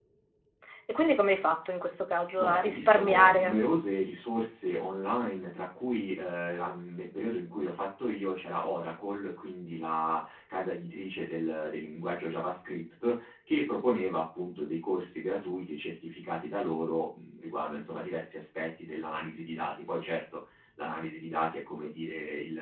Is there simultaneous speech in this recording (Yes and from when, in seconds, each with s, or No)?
Yes, from 2.4 s